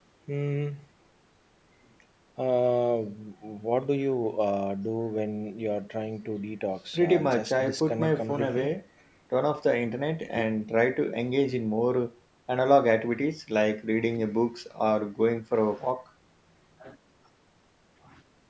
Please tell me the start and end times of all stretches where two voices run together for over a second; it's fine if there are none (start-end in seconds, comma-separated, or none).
7.0-8.7